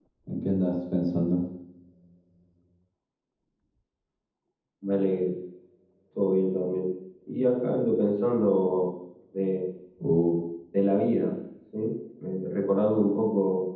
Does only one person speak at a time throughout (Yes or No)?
Yes